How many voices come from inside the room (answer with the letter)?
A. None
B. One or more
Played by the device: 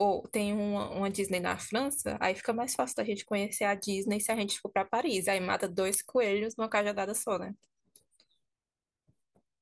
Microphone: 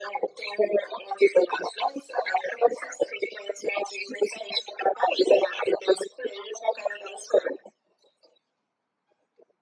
A